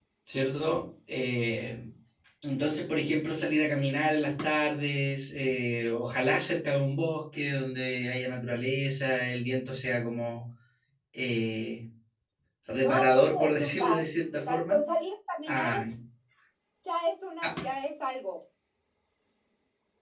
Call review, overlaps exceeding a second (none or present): present